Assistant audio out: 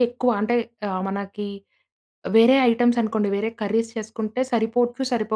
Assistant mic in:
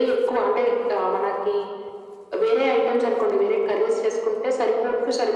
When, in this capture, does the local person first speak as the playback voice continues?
none

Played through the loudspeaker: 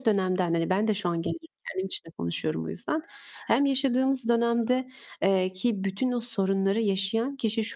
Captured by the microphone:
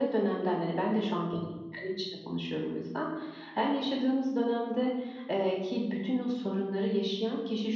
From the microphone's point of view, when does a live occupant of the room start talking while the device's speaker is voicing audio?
none

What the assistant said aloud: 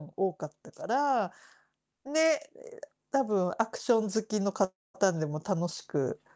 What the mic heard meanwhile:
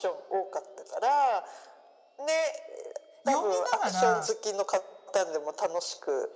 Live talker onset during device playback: 3.2 s

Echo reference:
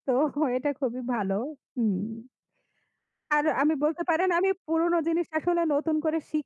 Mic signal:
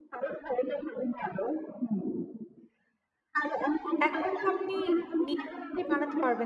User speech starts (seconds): 4.1 s

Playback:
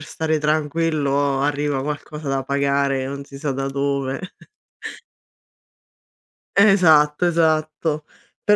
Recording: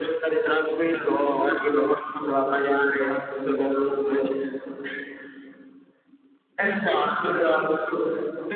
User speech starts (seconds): none

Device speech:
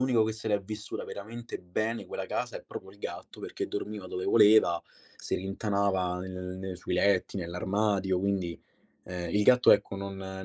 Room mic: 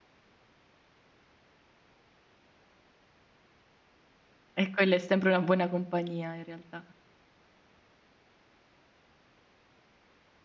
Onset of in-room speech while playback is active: 4.6 s

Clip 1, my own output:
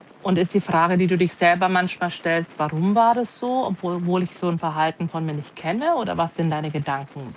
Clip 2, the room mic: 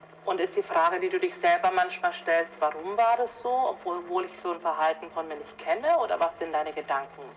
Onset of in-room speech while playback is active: none

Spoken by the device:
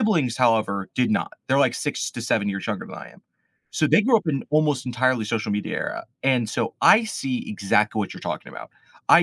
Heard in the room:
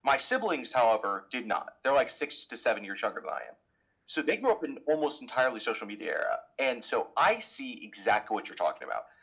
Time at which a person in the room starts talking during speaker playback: none

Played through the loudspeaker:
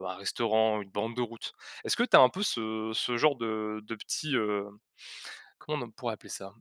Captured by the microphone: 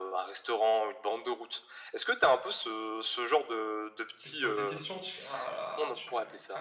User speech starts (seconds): 4.2 s

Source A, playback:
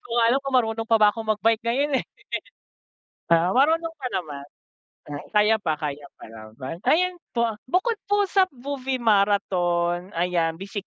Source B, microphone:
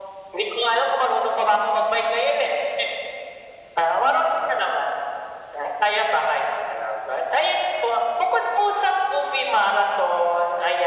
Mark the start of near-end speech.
none

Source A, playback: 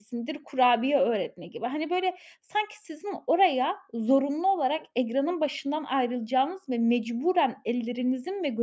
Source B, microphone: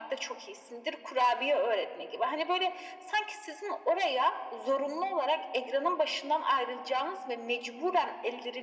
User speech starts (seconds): none

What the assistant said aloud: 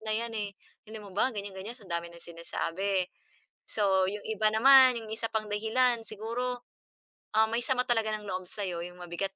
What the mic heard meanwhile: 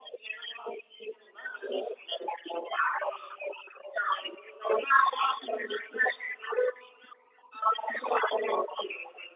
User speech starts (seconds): none

